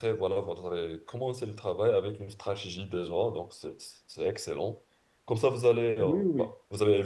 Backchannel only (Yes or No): Yes